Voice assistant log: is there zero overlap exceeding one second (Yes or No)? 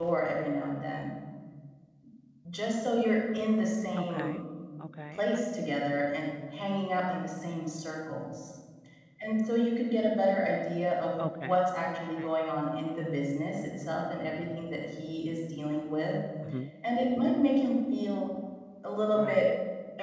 Yes